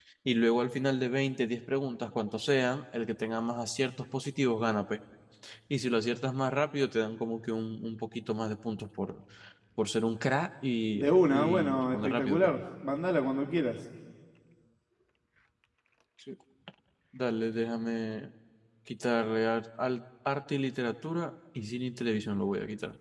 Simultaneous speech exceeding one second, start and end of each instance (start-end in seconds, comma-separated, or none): 10.9-12.4